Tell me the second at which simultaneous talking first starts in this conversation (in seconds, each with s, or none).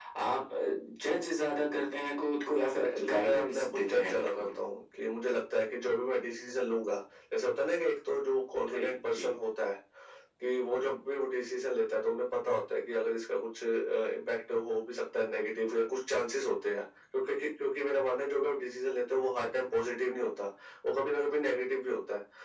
2.8 s